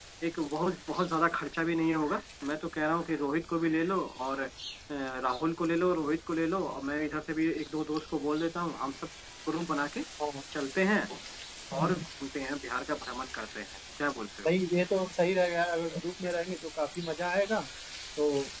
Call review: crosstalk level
none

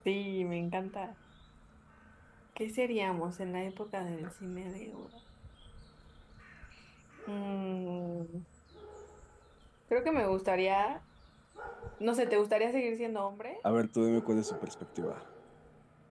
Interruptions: none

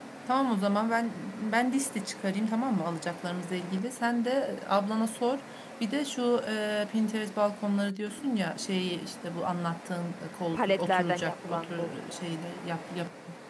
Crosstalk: present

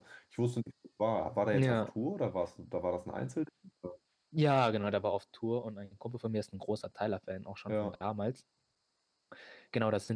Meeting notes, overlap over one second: none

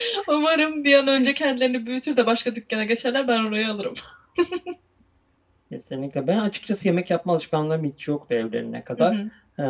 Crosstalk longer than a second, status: none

